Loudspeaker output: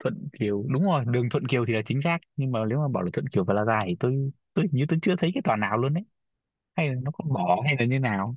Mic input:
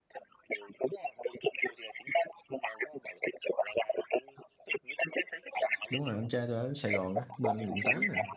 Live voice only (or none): đúng rồi anh trai tôi ở Sài Gòn á, bên quận 8 nè.